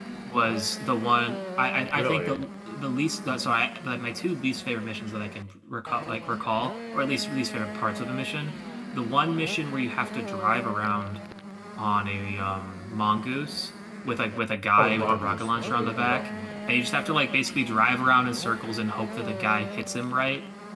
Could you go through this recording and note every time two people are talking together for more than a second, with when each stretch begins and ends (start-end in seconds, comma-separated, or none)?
14.8-16.3